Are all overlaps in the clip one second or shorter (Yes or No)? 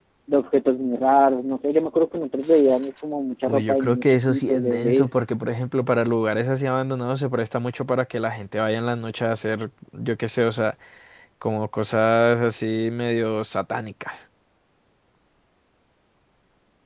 No